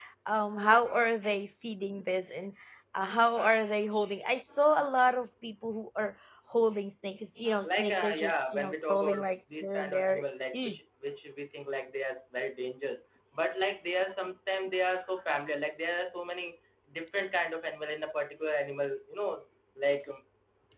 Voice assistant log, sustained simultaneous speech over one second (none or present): present